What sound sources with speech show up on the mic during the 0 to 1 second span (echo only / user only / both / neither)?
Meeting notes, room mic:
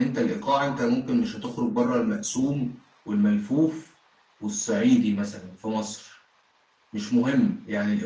echo only